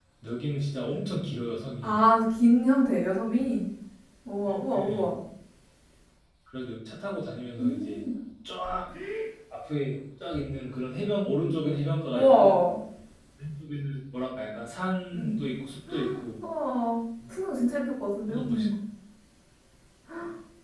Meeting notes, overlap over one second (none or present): none